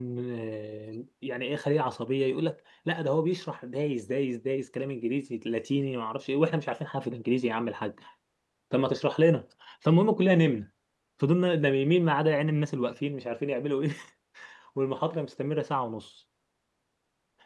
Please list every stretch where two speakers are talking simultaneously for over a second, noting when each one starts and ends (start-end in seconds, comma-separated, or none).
none